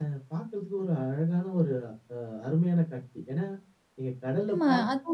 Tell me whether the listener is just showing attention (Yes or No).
No